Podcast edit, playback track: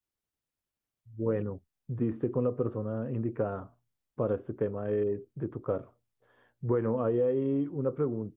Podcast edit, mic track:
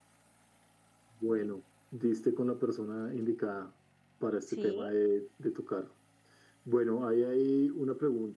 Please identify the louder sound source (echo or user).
echo